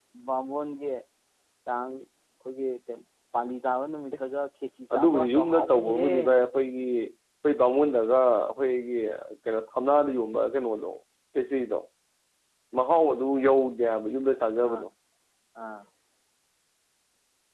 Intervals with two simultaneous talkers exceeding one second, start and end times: 4.9-6.1

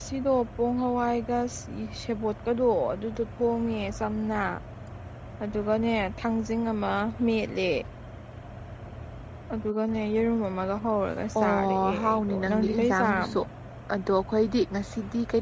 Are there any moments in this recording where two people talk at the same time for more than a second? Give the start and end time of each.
11.4-13.4

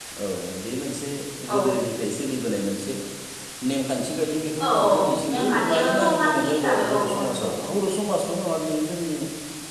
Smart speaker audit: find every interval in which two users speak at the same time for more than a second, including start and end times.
4.8-7.7

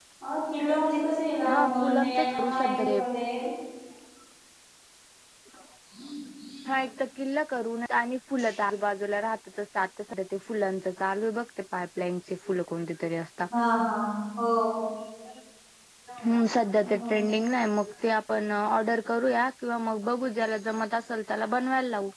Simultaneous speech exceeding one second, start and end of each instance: 1.5-3.0

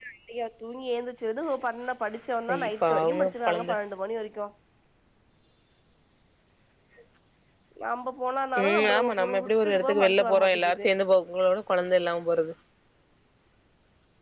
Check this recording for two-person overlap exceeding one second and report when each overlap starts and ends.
2.5-3.7, 8.6-10.9

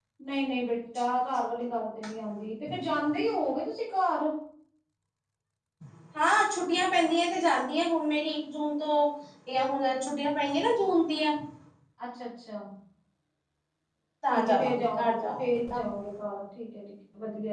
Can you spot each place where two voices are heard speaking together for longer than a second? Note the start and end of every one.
14.3-15.8

